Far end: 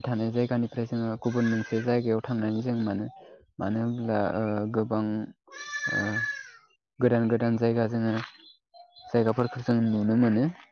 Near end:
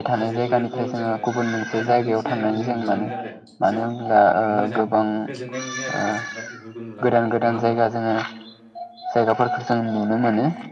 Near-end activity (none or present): present